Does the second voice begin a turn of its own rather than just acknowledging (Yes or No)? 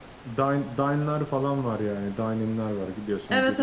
No